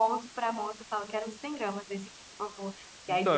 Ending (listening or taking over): taking over